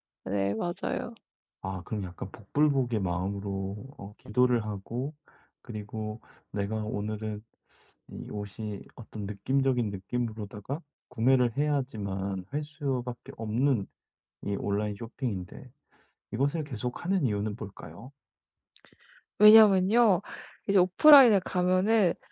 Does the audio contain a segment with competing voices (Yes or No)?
No